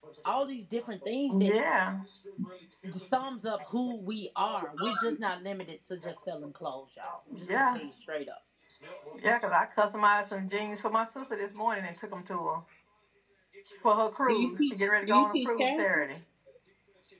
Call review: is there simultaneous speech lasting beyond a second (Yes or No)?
Yes